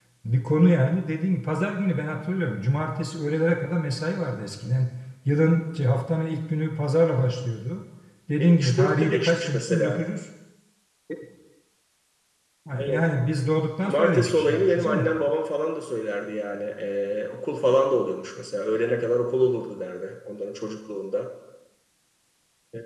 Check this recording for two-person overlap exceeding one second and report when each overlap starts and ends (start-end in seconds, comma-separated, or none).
8.4-10.0, 13.9-15.1